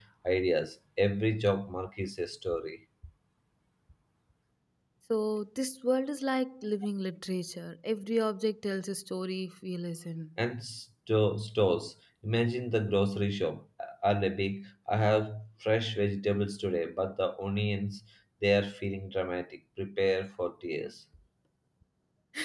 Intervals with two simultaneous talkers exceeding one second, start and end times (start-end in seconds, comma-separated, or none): none